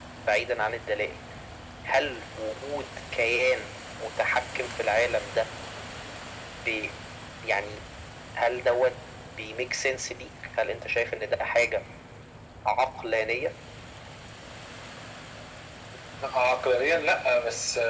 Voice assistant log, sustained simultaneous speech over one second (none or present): none